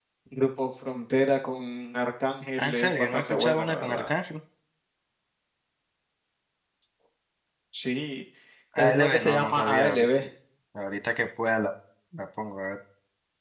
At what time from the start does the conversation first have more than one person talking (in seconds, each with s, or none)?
2.6 s